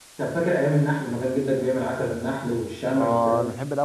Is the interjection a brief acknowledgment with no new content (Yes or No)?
No